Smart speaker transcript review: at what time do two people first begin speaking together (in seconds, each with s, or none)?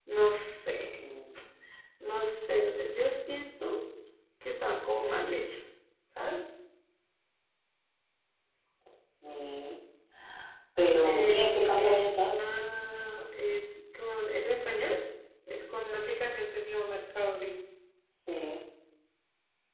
11.0 s